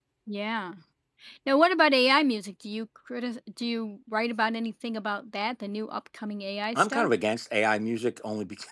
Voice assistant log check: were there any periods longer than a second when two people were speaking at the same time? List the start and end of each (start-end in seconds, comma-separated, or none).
none